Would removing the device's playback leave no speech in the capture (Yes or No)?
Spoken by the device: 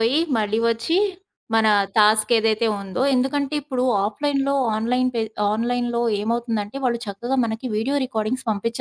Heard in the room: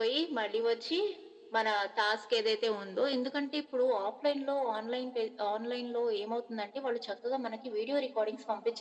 Yes